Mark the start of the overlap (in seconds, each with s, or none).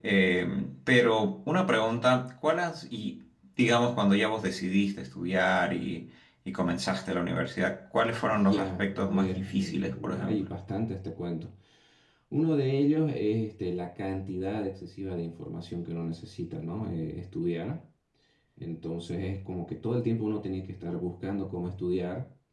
8.2 s